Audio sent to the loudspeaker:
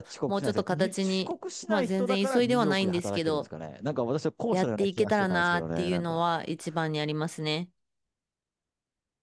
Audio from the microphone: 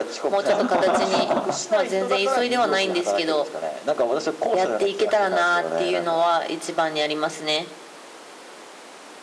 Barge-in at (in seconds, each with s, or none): 0.5 s